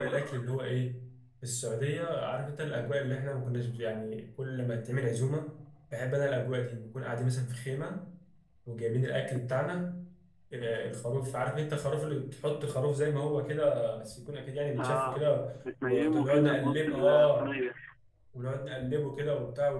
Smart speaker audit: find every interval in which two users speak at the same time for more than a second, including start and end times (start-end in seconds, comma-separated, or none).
15.8-17.5